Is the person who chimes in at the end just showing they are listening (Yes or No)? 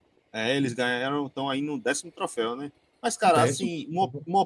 Yes